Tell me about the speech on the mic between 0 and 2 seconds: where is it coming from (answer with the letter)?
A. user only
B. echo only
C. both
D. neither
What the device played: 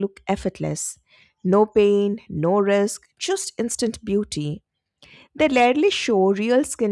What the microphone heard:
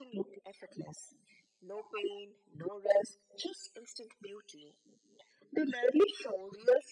B